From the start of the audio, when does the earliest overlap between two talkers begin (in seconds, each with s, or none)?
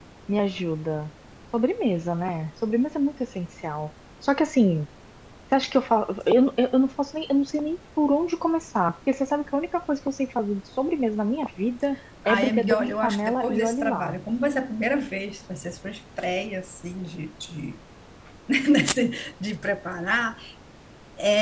12.2 s